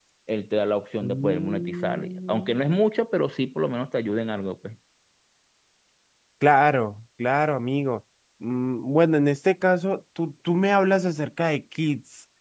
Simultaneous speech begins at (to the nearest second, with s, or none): 1 s